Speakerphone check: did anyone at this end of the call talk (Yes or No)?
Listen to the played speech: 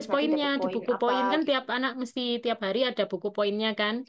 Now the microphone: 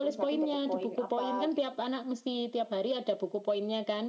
No